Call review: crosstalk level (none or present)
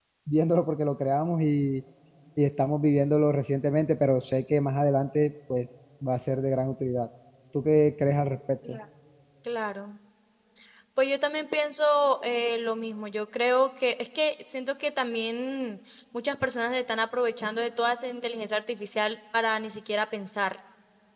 none